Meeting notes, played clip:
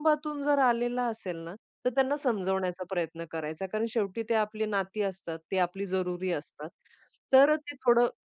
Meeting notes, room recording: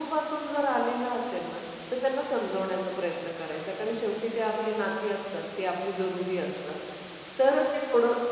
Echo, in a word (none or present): present